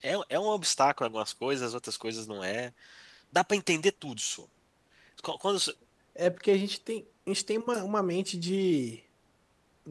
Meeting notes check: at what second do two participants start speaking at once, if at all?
none

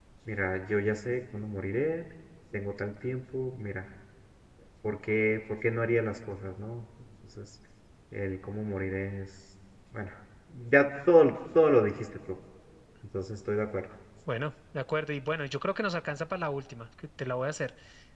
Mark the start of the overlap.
none

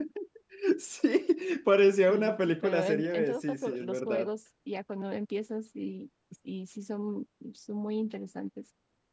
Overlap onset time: 2.1 s

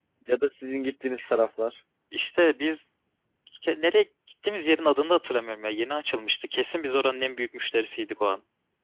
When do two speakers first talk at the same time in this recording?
none

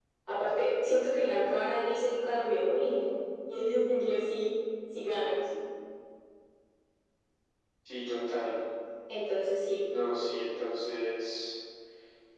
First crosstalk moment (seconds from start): none

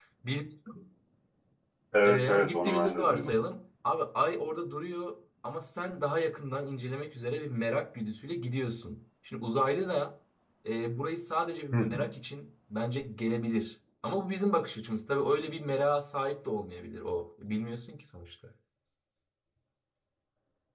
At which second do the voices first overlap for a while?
2.0 s

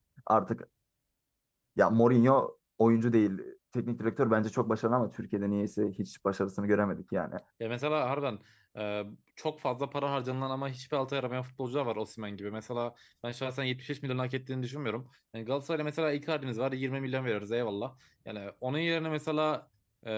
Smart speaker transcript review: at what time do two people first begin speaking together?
none

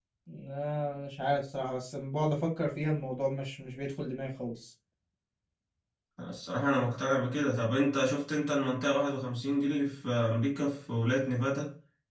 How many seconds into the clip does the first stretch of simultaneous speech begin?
none

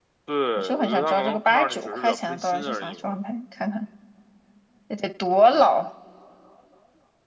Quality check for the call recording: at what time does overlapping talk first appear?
0.6 s

